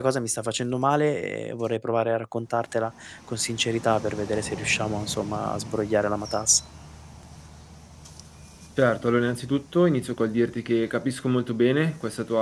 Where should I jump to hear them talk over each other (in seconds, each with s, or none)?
none